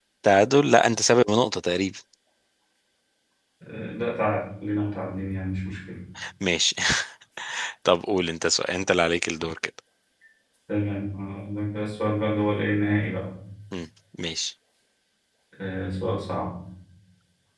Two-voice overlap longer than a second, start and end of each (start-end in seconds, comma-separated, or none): none